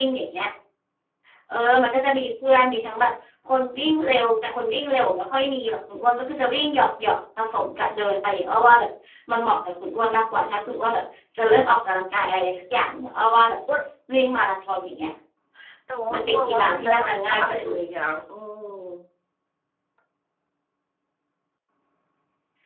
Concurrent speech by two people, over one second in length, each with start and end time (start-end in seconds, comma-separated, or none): 16.1-17.7